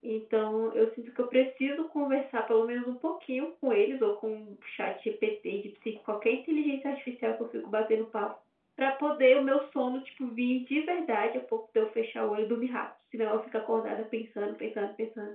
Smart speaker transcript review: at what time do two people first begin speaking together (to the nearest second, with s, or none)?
none